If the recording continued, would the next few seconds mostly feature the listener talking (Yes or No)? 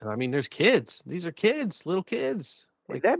Yes